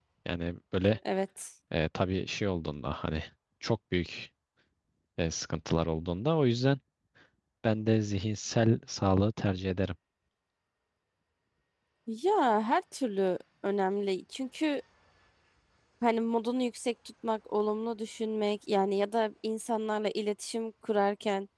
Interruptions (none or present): none